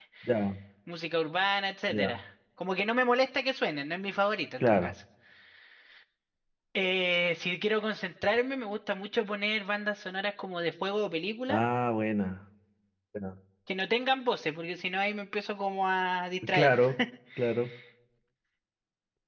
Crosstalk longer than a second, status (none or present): none